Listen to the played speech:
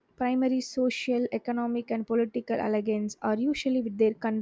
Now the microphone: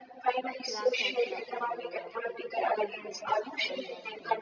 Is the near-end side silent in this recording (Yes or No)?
No